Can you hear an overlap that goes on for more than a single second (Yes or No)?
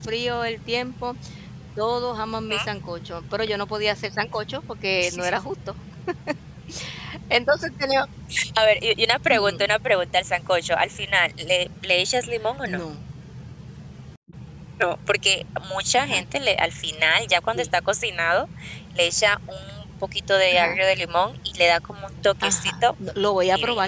No